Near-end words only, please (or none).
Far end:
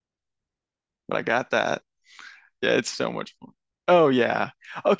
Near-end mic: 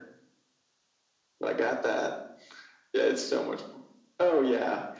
none